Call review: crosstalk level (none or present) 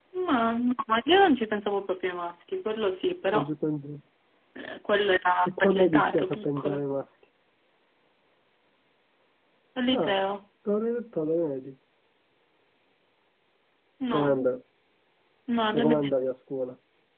present